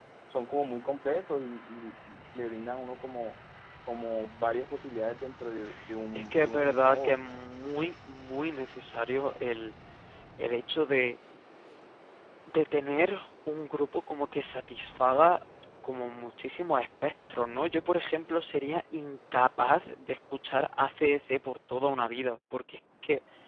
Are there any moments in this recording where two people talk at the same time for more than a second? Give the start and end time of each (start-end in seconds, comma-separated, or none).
6.1-7.4